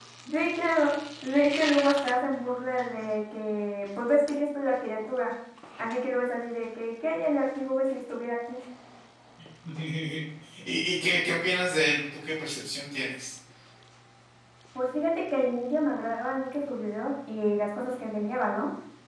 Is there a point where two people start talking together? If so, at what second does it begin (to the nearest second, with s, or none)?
none